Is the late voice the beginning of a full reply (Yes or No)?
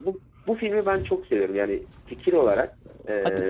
No